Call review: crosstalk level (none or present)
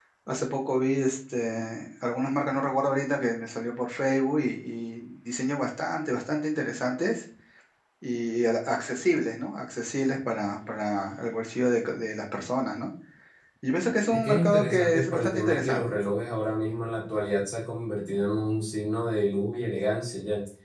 present